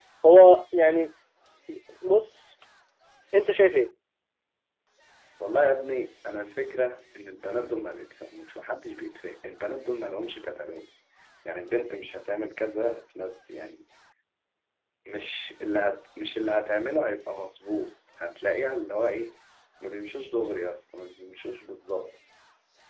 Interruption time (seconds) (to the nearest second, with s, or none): none